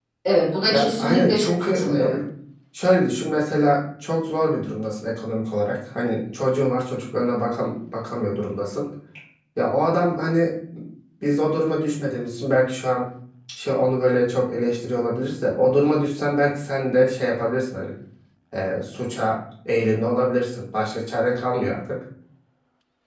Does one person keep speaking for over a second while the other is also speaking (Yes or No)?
Yes